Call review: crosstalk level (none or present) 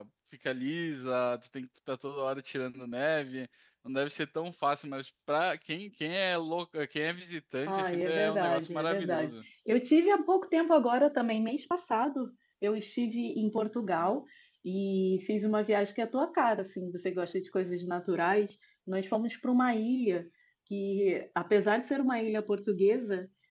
present